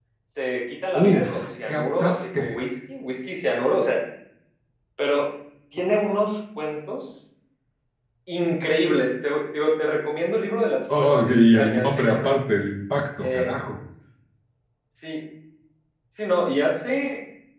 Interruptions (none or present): present